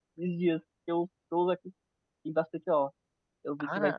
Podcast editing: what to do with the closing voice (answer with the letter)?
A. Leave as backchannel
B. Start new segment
A